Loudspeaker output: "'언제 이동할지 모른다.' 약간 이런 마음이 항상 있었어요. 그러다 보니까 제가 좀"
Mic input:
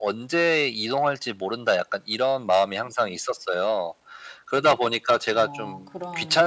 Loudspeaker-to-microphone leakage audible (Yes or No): Yes